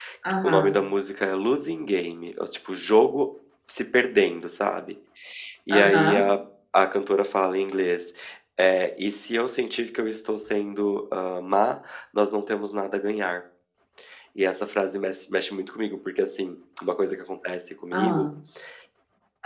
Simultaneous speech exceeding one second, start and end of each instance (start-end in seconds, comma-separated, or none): none